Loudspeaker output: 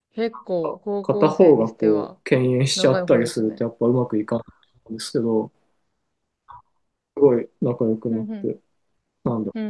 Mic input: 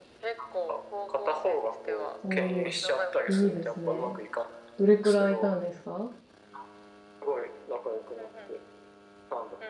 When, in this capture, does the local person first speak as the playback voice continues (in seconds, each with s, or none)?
2.2 s